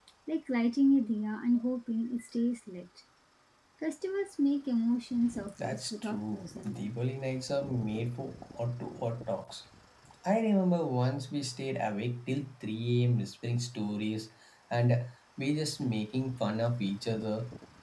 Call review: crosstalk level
present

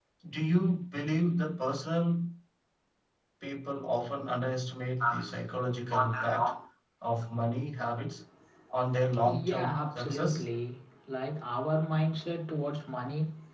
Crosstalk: present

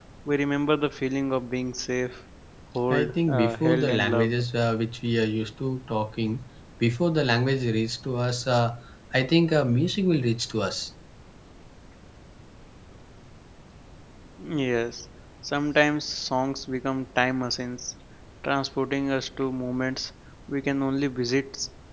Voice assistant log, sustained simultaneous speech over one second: present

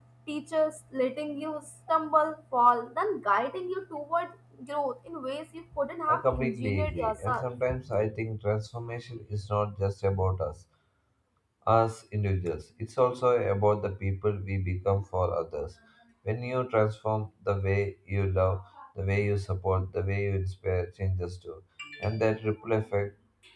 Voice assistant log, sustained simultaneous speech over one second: present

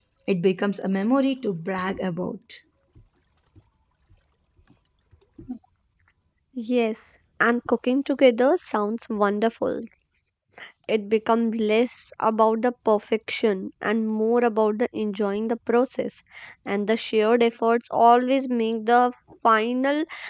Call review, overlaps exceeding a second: none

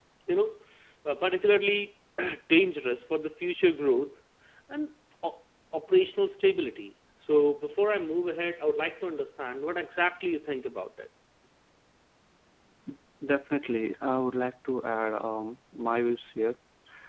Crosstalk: none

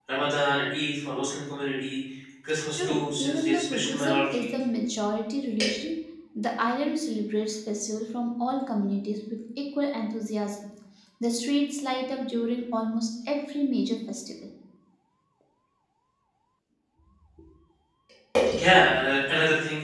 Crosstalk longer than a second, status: present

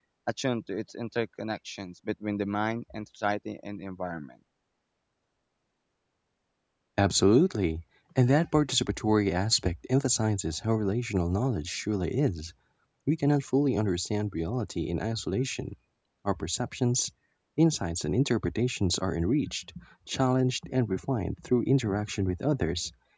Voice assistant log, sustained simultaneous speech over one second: none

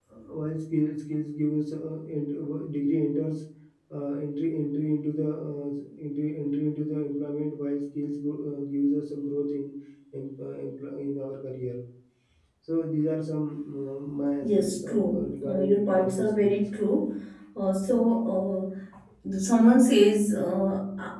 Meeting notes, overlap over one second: present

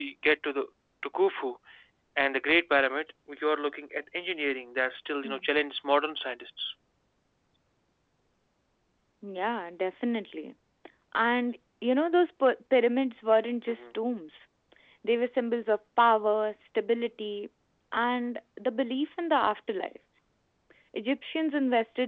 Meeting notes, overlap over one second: none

